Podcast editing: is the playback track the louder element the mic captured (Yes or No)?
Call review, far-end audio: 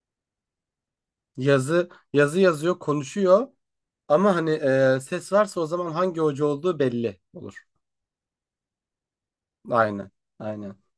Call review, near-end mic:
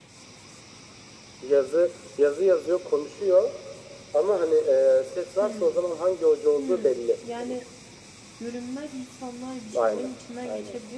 Yes